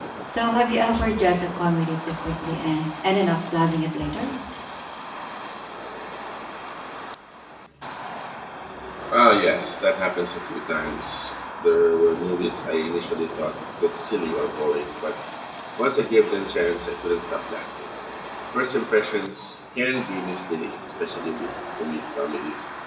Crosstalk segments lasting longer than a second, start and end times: none

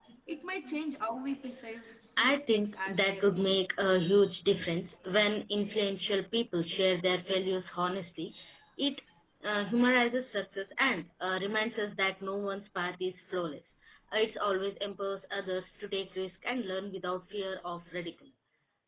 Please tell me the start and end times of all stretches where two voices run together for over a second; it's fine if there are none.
2.2-3.5

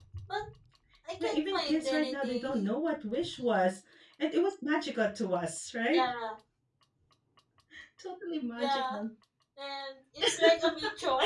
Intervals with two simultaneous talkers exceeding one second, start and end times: 1.2-2.7

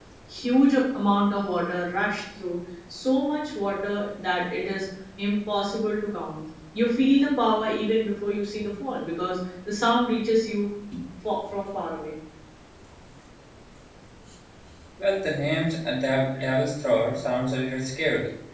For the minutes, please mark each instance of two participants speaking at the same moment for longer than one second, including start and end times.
none

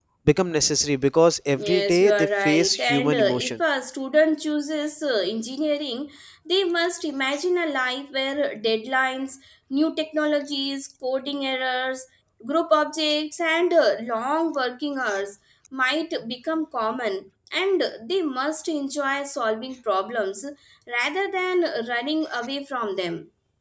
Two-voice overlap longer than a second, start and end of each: 1.6-3.6

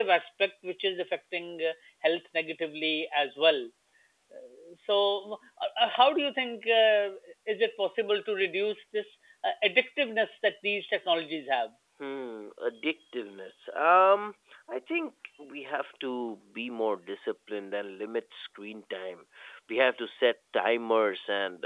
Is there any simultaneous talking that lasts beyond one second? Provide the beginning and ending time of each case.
none

